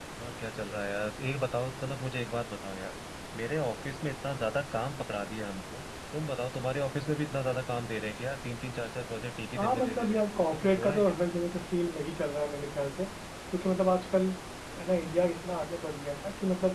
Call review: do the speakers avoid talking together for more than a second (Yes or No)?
No